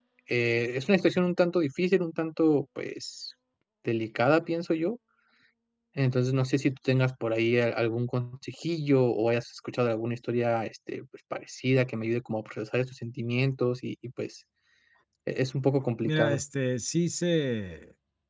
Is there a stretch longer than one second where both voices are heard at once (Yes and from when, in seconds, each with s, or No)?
No